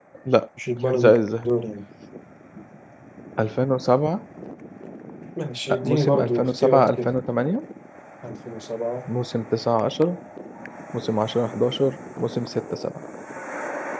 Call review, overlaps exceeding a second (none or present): present